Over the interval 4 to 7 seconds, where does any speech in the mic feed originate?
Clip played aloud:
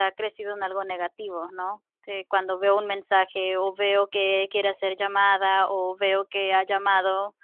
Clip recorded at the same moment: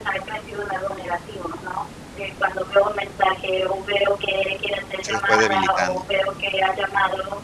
both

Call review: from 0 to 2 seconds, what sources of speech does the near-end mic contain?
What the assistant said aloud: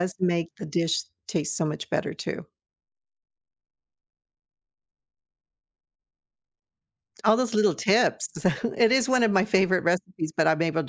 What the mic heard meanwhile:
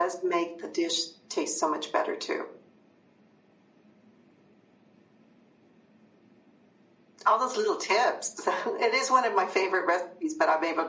echo only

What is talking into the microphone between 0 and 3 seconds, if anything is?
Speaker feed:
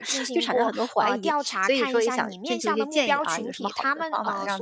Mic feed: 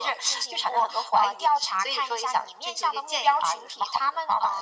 echo only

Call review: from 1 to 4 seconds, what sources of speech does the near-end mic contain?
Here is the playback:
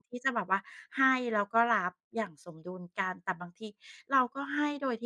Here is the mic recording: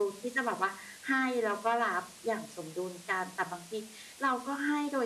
echo only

